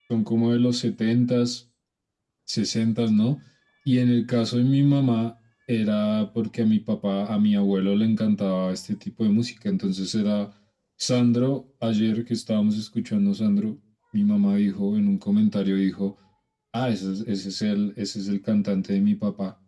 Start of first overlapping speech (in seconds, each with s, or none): none